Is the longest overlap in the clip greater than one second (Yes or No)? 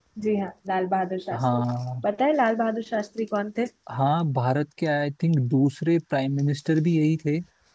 No